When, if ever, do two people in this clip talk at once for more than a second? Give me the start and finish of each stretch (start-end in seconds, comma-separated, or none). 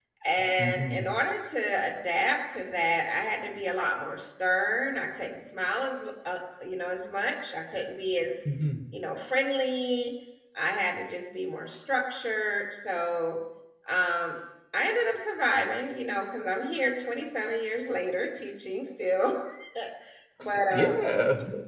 none